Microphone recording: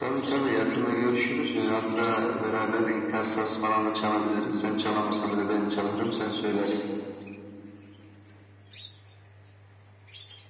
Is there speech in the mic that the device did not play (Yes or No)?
No